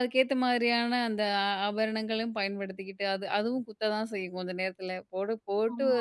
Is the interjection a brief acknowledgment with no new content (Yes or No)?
Yes